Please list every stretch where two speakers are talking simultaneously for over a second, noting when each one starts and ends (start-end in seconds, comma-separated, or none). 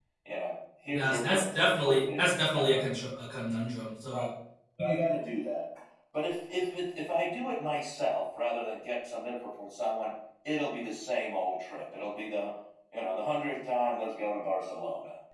0.9-2.8